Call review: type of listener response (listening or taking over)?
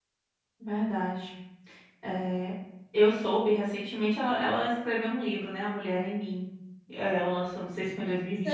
taking over